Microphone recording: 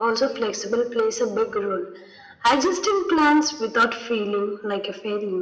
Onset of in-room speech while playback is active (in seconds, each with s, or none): none